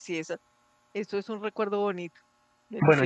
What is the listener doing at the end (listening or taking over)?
taking over